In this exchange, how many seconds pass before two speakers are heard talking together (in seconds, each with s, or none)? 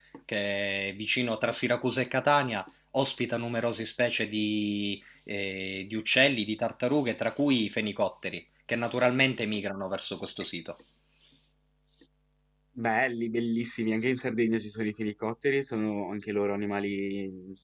none